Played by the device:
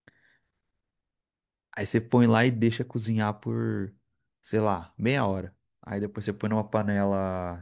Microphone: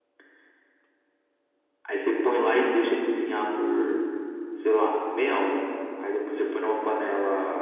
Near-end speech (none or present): none